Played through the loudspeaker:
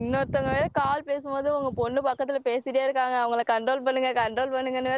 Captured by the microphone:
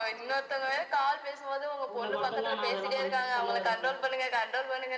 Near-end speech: present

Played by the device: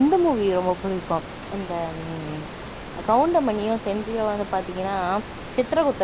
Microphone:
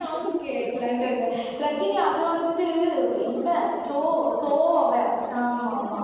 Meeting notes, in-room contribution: present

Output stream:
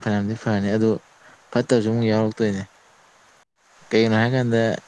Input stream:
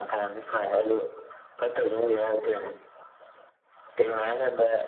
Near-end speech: none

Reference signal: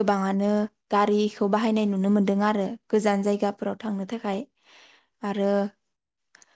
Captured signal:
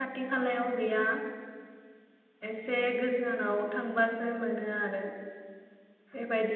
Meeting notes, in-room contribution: present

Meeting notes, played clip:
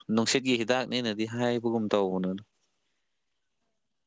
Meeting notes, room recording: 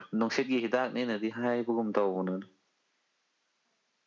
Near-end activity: none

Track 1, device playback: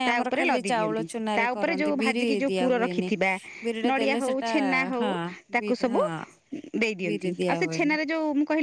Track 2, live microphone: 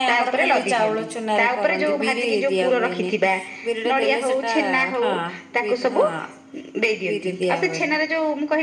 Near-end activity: none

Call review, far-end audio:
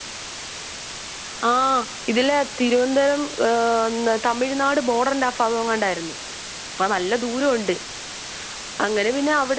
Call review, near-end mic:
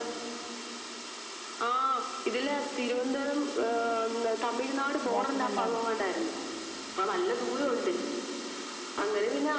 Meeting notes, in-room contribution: present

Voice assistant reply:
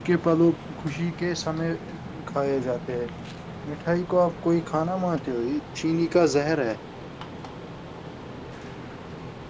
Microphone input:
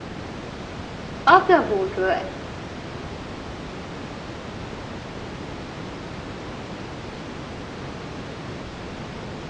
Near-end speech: present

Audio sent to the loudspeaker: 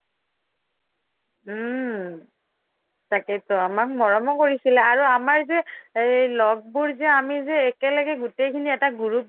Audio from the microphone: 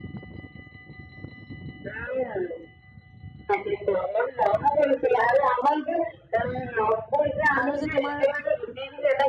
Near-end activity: present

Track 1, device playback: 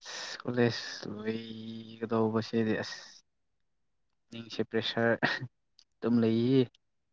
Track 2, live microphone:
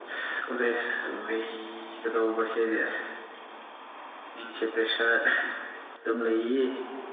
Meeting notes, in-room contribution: none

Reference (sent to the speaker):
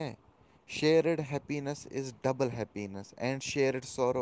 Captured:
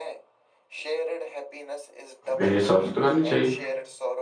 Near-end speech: present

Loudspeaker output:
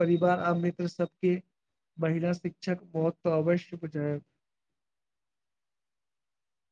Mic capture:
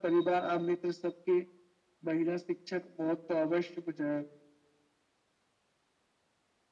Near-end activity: none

